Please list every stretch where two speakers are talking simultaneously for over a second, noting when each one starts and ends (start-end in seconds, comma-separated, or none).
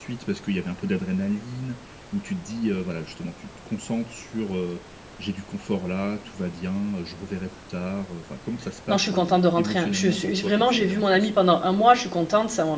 8.9-11.3